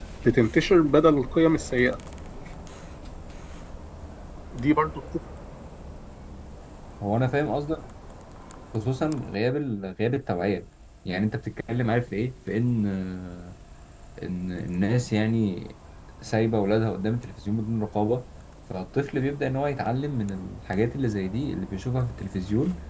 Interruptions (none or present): none